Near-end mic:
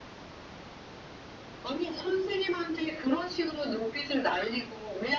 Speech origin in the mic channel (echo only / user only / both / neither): echo only